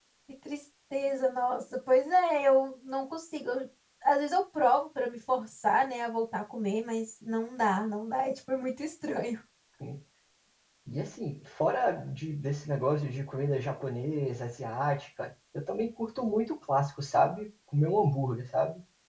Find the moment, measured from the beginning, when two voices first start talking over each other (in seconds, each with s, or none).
none